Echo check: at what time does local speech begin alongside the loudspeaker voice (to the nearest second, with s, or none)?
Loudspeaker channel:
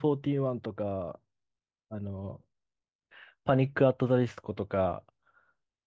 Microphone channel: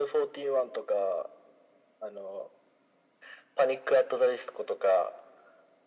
none